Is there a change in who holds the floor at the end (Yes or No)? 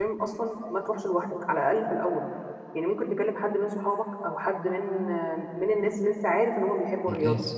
No